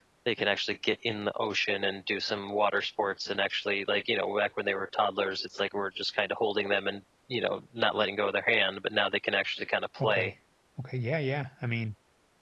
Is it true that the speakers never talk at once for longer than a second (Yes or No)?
Yes